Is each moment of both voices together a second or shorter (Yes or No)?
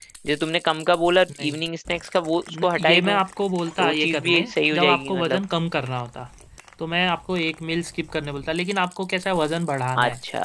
No